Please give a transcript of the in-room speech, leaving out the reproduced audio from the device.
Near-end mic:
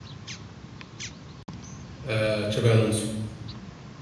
آه تشابي الونسو

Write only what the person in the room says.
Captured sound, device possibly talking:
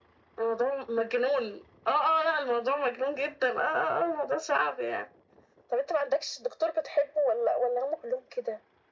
none

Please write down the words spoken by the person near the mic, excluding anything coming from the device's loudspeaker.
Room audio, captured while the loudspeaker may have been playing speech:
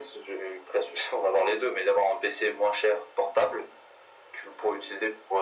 none

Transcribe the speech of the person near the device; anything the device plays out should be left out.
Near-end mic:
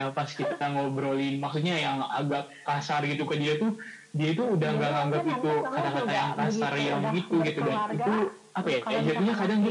none

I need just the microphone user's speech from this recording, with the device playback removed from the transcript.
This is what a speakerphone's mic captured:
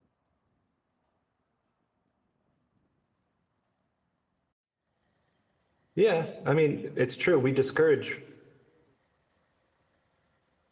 Yeah, I mean, it's true. We discourage

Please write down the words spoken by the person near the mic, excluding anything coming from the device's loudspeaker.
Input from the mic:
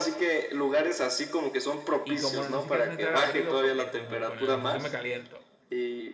y como no ni siquiera necesitar abrigo porque como con el ejercicio me caliento.

